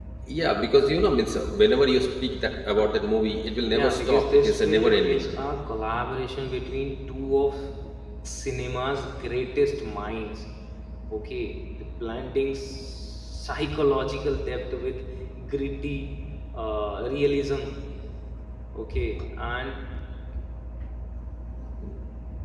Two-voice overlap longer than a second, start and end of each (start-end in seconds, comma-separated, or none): 3.7-5.3